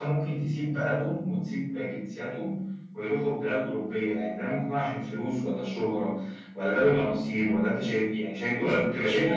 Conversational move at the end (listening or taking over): listening